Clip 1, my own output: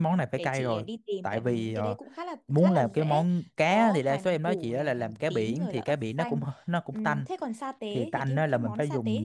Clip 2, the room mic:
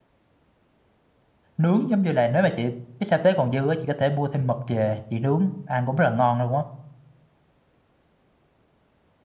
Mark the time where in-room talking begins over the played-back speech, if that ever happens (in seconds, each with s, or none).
1.6 s